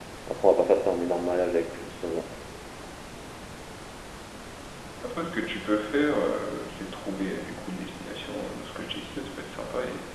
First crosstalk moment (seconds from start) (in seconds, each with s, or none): none